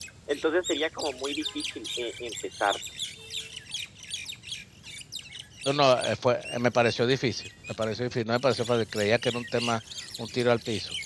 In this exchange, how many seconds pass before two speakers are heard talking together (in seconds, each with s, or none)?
none